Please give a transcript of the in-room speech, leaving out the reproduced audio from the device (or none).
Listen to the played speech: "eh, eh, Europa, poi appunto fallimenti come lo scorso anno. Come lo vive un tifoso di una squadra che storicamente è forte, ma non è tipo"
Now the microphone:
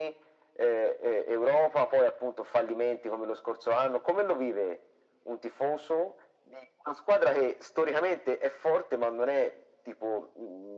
none